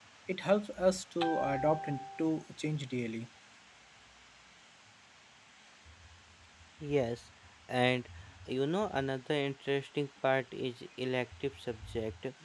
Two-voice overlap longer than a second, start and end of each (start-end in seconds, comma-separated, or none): none